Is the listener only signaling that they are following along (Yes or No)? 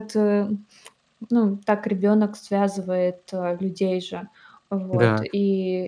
Yes